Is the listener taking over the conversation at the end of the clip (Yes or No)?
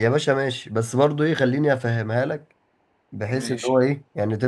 No